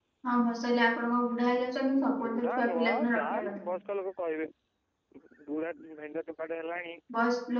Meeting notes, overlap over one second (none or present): present